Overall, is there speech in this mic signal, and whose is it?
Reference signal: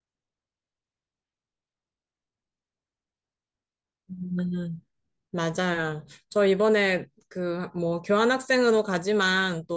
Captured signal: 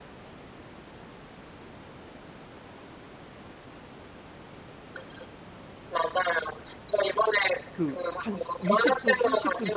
both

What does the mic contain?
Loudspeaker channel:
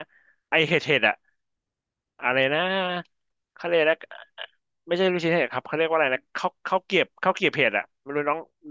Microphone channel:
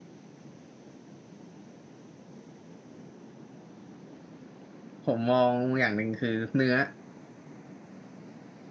user only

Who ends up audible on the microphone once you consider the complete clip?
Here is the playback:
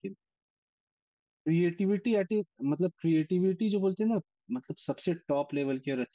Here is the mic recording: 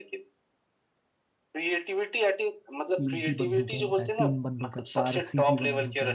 both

